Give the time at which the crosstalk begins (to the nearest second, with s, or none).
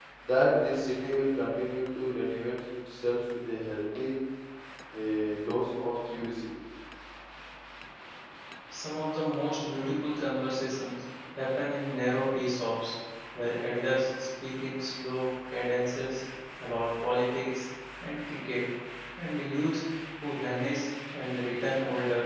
none